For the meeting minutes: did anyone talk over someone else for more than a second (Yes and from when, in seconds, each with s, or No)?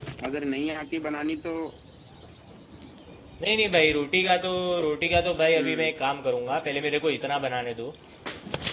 No